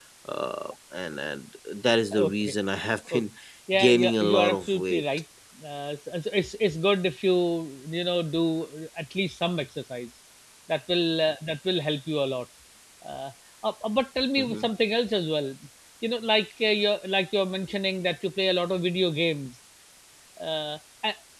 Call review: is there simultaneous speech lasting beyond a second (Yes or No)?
Yes